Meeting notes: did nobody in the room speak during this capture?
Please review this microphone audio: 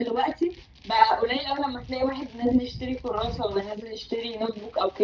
Yes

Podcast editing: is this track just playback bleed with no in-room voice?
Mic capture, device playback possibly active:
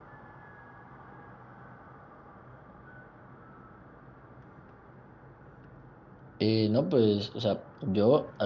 No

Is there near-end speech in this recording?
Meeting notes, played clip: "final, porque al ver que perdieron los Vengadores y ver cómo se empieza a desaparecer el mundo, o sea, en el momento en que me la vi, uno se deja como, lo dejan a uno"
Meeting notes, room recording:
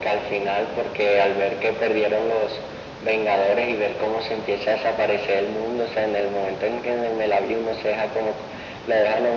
No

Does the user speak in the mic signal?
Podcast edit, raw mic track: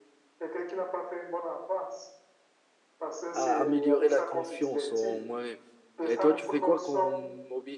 Yes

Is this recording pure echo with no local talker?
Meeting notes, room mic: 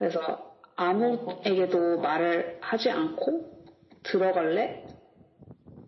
No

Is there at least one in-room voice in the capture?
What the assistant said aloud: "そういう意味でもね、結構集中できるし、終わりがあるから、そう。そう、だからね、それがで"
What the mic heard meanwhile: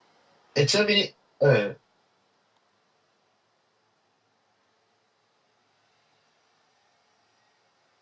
Yes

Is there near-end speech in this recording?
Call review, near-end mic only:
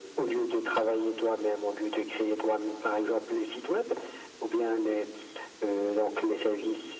No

